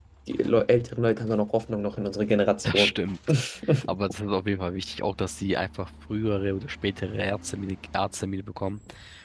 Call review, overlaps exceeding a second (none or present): none